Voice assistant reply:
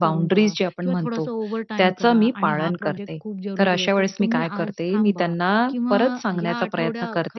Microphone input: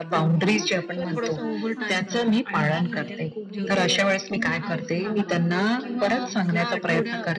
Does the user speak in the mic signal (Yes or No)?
Yes